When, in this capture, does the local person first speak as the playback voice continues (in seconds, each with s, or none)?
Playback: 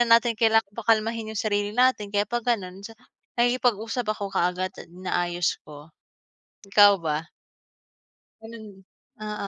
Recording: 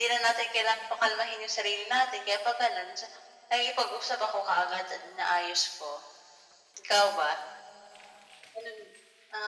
none